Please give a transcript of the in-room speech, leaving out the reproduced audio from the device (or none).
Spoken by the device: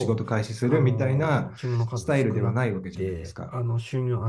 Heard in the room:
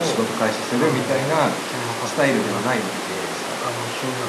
none